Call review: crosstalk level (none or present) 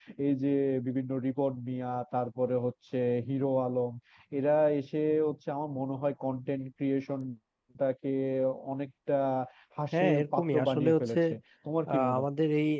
present